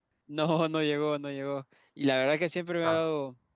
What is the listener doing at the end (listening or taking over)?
listening